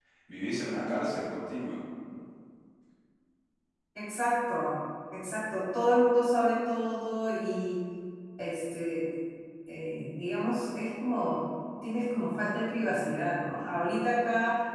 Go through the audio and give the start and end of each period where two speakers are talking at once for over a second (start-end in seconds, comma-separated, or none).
none